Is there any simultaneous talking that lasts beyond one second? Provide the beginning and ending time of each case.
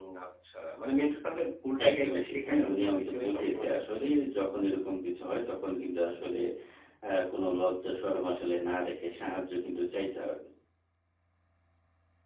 1.9-4.0

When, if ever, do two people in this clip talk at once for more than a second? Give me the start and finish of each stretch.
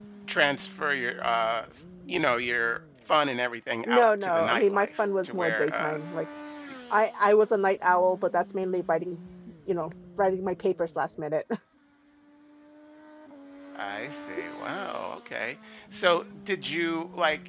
3.8-5.9

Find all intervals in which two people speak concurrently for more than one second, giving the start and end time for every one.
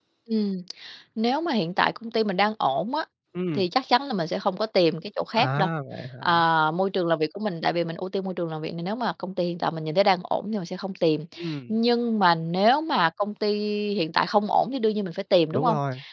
none

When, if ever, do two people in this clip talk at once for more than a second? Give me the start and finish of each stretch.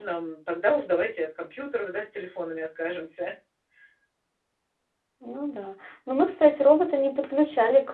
none

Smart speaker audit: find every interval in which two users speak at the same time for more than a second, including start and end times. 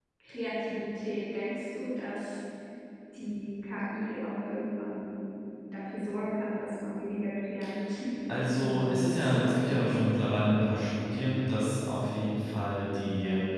8.3-9.8

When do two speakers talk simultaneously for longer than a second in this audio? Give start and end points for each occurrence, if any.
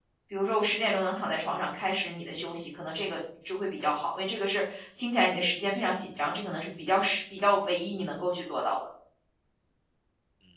none

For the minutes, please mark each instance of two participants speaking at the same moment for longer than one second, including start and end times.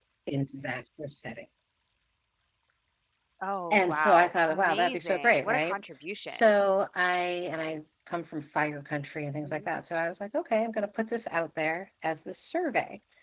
3.7-5.8

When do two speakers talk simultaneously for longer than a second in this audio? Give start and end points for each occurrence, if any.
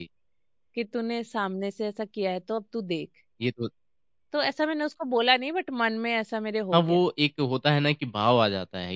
none

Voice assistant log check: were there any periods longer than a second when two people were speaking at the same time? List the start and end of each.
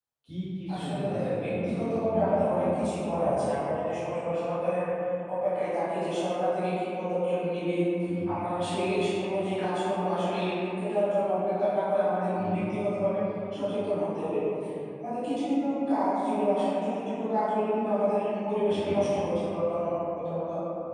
0.7-3.5

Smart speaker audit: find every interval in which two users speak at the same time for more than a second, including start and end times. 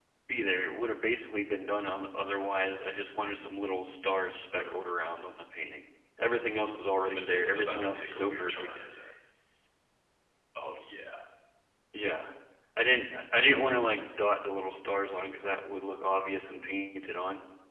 7.1-8.7

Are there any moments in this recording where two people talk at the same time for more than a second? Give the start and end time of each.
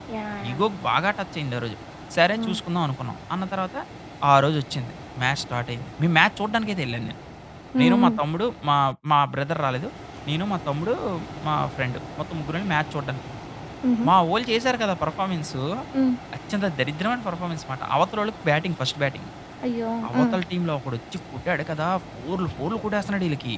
none

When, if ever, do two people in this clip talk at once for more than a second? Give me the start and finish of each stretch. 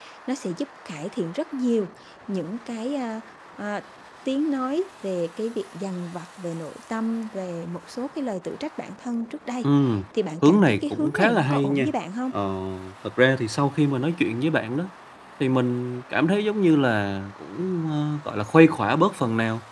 10.4-11.9

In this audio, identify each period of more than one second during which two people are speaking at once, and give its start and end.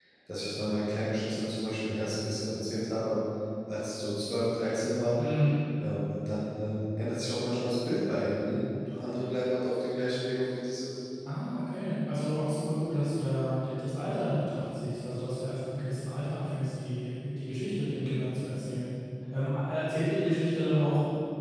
none

